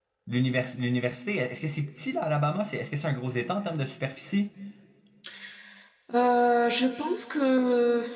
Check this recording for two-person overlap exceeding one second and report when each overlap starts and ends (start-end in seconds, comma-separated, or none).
none